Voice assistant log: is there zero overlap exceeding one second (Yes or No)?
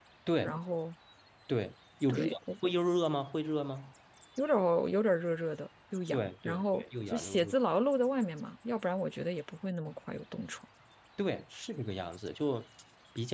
No